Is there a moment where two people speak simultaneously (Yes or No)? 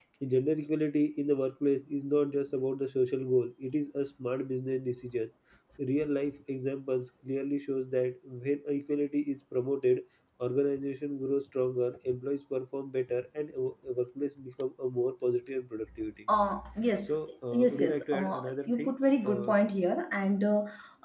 Yes